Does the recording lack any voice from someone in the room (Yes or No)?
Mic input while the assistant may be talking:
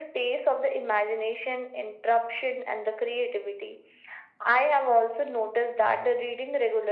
Yes